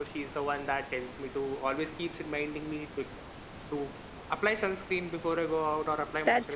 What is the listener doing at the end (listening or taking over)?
taking over